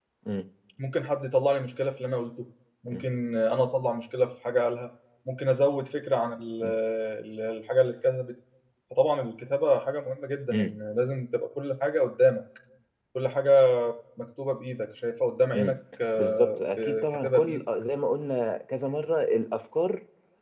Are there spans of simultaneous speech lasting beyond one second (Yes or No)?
Yes